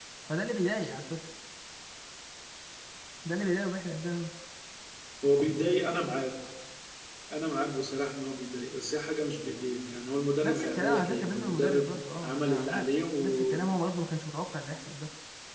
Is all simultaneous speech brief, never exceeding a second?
No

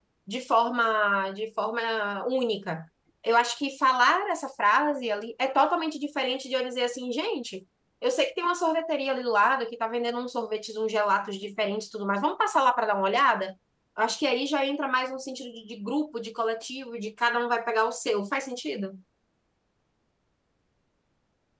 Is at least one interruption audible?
No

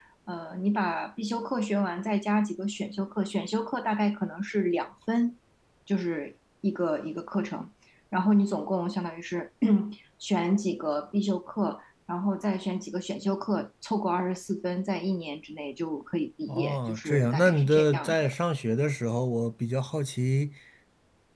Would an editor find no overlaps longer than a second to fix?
No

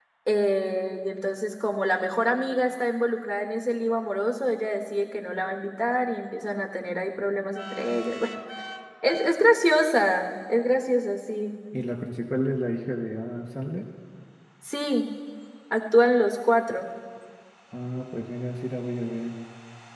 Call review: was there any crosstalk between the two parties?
No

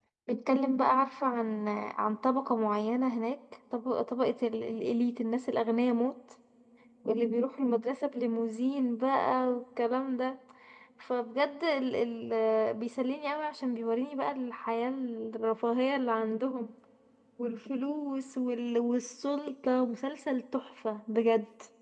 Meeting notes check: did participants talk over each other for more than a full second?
No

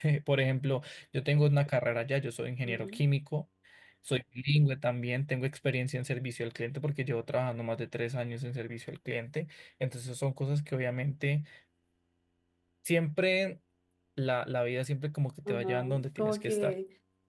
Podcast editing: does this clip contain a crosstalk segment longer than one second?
Yes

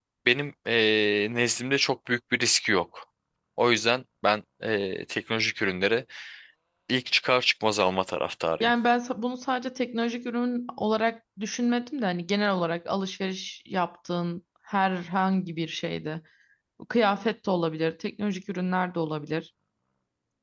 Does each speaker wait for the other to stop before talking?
Yes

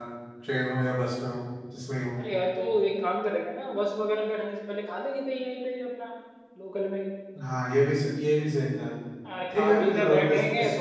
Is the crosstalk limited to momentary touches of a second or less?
No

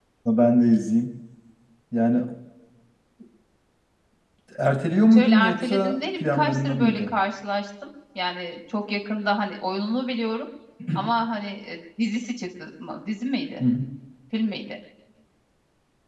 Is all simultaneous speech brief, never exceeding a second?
No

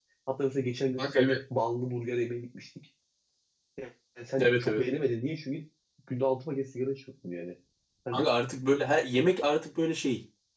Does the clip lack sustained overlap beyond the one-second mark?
Yes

